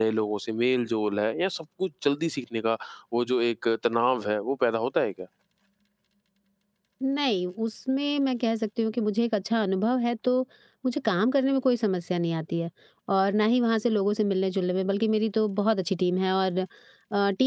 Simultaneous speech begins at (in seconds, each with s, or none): none